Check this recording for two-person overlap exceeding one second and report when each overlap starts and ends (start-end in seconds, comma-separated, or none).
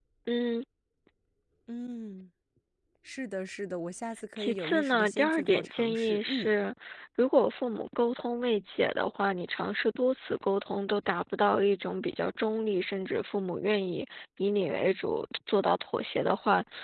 4.4-6.5